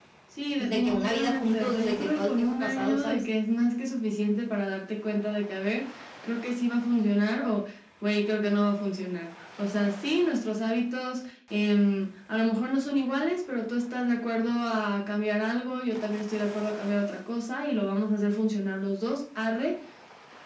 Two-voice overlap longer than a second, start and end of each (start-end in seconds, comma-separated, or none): 0.6-3.2